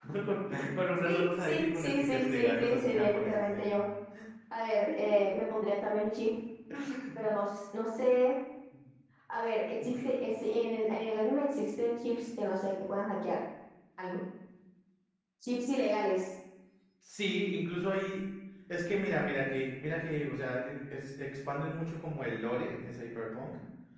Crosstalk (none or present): present